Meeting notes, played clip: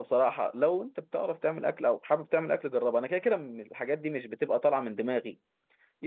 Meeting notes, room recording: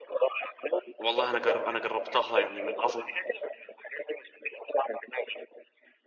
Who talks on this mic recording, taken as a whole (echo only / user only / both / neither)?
both